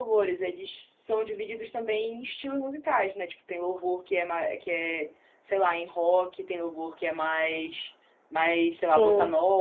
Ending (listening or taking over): listening